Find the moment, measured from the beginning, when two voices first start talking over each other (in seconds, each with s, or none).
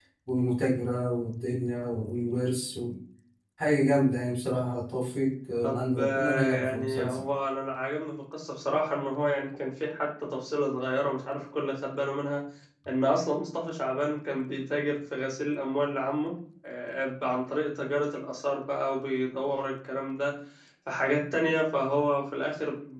5.6 s